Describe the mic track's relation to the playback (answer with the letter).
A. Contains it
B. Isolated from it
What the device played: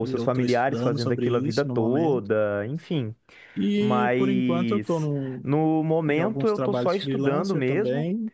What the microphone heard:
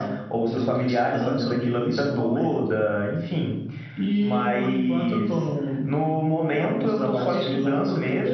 A